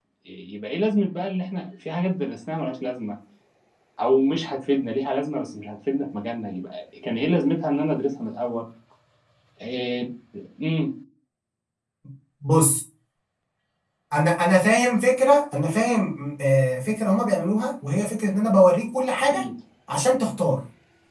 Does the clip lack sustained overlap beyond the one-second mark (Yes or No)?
Yes